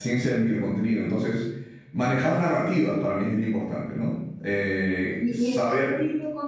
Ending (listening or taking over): taking over